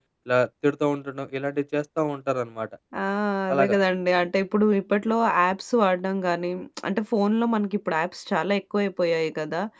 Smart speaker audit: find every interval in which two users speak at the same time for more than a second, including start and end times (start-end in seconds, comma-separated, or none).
none